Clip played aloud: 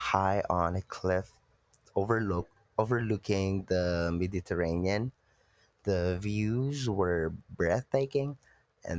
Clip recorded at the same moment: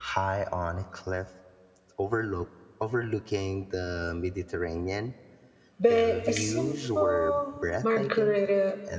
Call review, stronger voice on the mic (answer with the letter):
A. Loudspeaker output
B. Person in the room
B